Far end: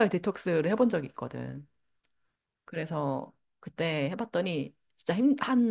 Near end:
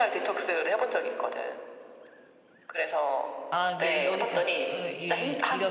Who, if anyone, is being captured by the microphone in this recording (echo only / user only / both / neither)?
both